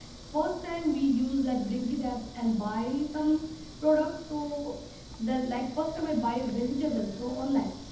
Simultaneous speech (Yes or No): No